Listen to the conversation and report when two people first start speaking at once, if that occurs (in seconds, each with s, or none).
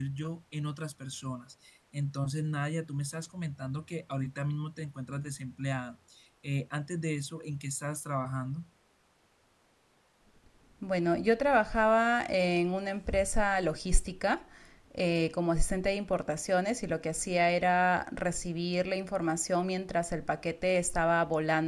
none